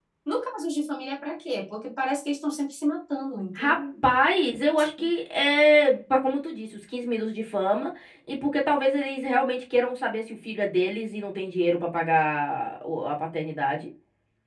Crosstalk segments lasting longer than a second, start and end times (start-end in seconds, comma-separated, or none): none